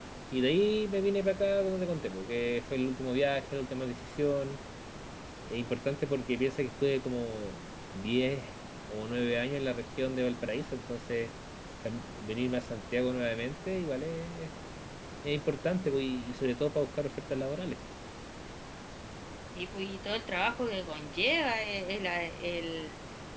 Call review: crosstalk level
none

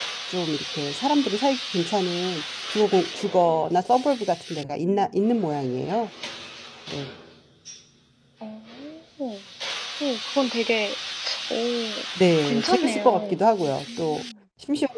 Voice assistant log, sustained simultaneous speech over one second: present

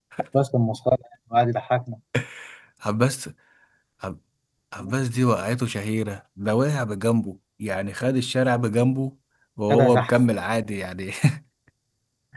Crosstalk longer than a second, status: none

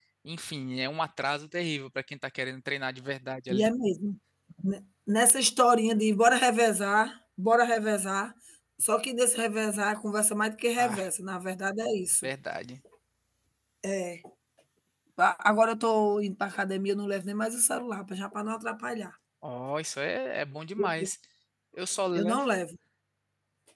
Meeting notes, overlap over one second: none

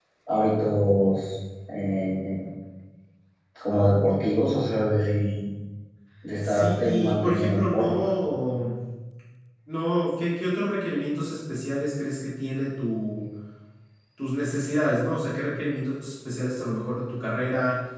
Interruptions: present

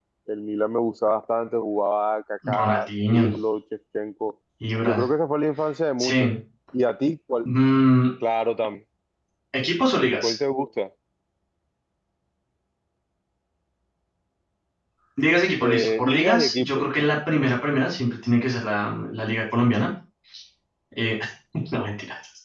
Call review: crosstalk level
present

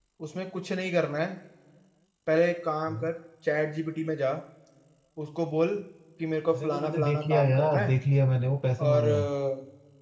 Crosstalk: present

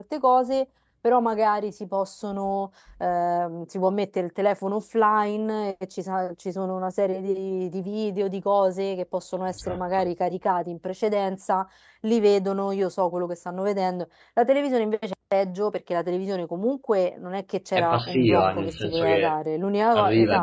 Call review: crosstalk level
present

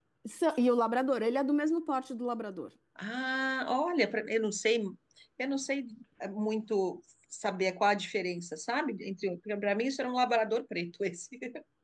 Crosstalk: none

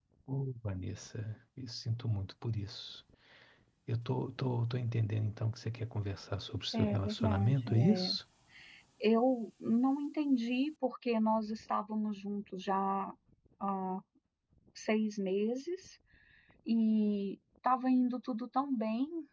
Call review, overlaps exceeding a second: present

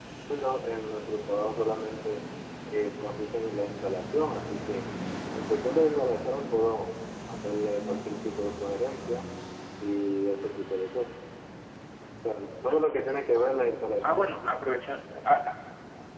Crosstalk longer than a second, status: none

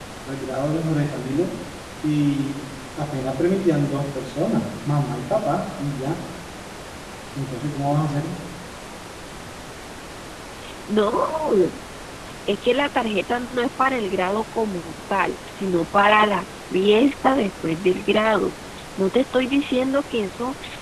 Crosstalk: none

